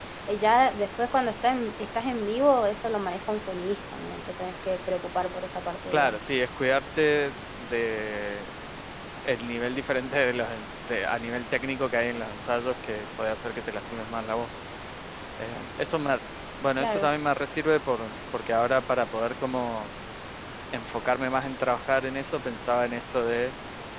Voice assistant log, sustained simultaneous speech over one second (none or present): none